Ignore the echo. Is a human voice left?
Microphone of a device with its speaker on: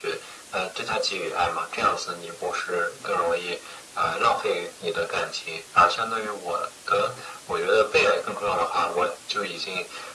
No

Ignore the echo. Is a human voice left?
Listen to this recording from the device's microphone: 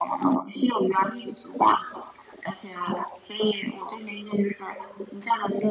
No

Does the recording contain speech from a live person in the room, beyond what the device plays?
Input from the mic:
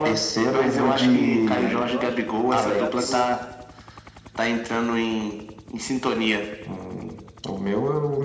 Yes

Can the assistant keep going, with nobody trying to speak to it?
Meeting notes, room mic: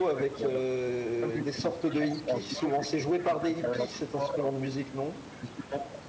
No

